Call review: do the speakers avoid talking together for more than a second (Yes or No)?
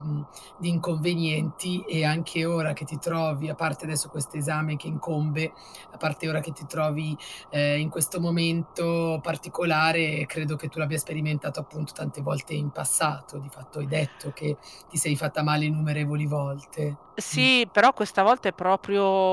Yes